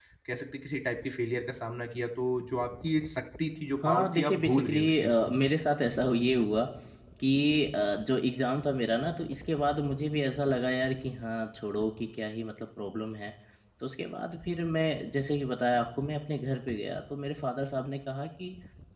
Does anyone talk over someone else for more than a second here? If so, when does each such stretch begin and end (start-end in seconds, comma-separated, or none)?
3.8-5.3